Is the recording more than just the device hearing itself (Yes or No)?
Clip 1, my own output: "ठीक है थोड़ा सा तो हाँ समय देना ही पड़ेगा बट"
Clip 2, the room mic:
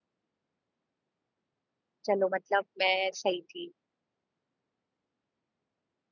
Yes